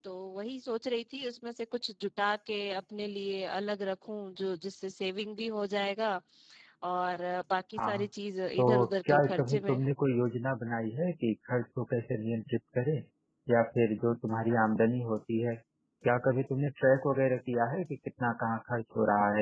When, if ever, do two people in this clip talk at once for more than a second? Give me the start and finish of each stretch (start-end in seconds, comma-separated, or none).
8.6-9.8